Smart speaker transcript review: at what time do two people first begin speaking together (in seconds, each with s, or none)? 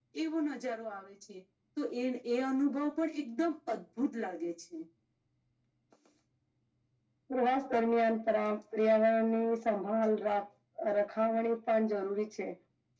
none